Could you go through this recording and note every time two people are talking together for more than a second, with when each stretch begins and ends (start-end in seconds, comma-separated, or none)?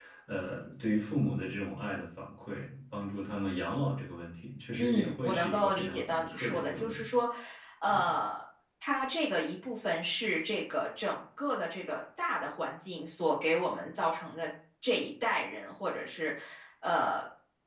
4.8-7.1